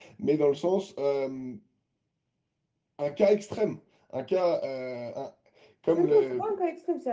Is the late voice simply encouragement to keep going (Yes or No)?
No